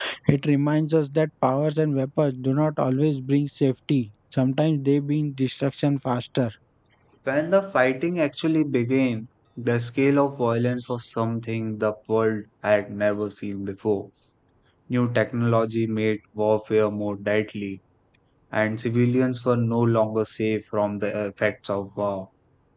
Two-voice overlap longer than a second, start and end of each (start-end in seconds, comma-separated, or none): none